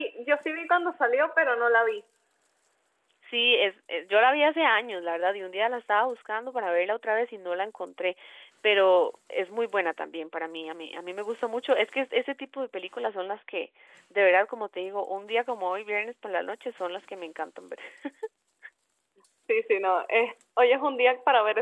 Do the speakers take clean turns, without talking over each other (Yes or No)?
Yes